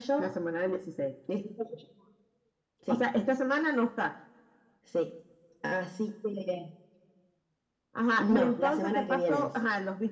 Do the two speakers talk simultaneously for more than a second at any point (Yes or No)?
Yes